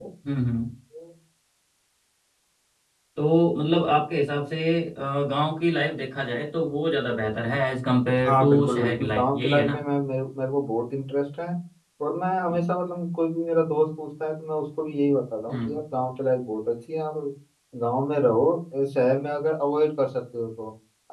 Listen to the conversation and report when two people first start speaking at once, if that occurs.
8 s

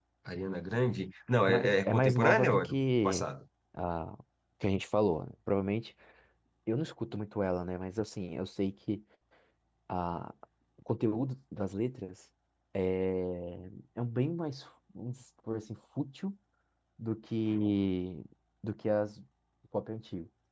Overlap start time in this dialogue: 1 s

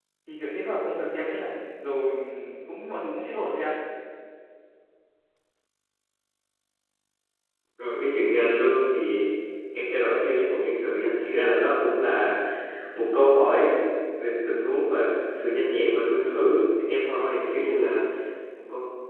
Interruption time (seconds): none

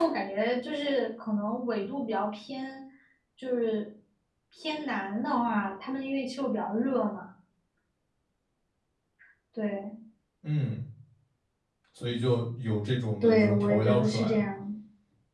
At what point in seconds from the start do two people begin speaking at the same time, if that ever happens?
13 s

